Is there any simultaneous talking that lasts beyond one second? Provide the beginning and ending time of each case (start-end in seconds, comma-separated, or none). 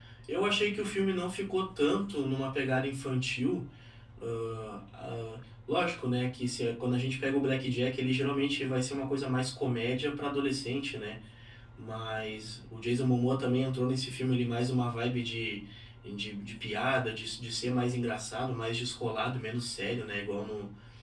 none